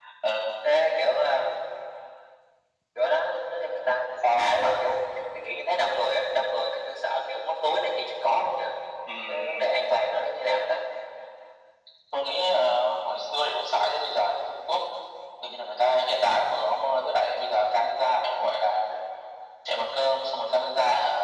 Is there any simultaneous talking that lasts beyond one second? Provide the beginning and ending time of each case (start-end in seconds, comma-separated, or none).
none